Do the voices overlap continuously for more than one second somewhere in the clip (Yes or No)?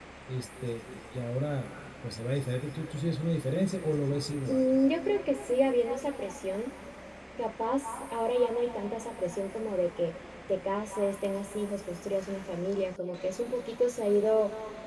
No